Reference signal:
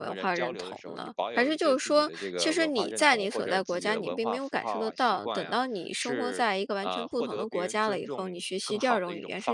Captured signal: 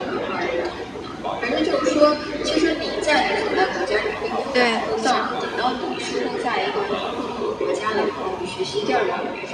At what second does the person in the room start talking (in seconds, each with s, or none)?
4.5 s